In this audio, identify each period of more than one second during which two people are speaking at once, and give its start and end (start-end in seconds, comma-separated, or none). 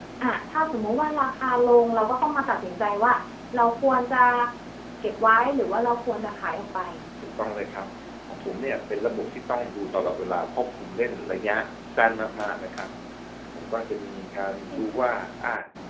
none